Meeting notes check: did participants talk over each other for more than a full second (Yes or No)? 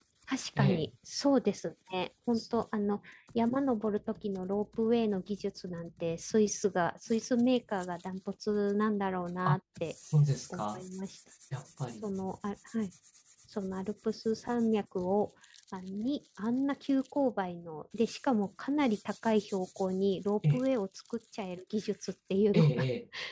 No